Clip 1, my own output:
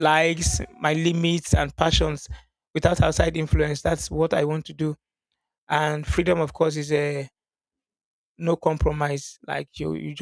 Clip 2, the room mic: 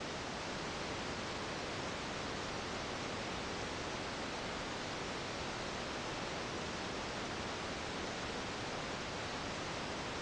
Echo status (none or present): none